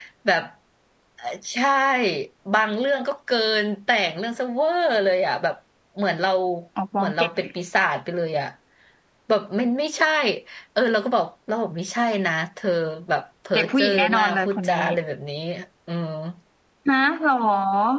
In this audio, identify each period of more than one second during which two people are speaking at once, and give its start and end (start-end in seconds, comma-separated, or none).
13.5-14.8